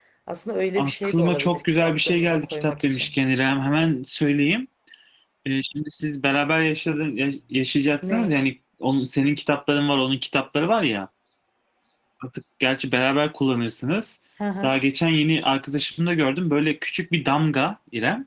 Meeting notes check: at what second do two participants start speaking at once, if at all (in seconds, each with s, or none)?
0.8 s